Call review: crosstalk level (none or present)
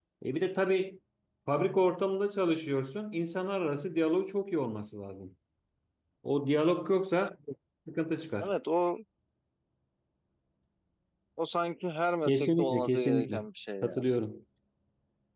present